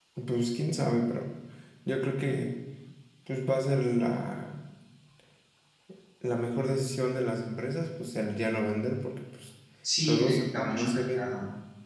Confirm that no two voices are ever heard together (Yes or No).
No